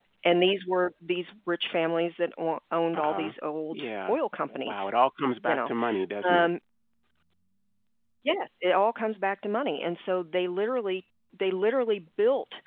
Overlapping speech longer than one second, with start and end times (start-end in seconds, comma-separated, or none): none